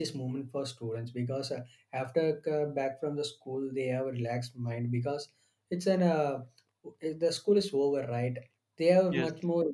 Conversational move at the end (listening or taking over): listening